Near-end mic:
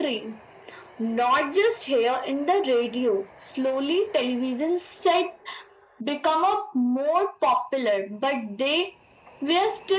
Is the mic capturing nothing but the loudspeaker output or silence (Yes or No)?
Yes